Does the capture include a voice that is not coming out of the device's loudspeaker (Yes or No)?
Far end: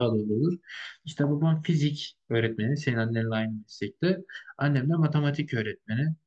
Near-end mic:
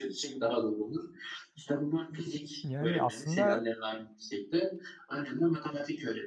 Yes